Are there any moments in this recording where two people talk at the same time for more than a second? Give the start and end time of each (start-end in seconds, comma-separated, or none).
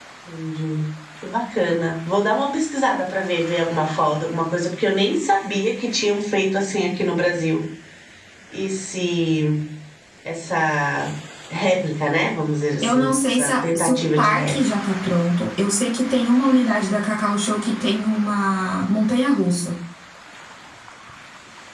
12.8-14.6